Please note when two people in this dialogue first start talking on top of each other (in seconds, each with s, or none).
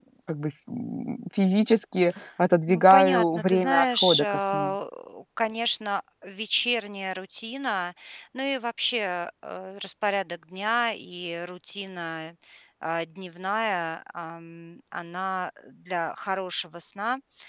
2.7 s